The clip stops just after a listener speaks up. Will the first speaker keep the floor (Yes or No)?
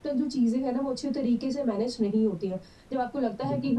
Yes